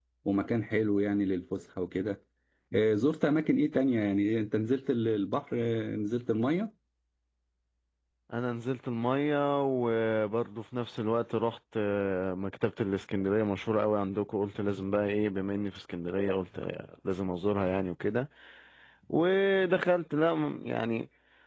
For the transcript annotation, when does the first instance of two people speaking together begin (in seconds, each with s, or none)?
none